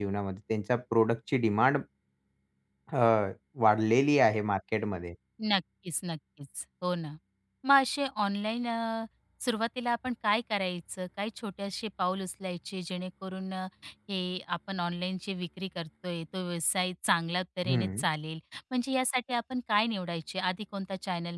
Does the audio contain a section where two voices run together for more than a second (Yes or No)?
No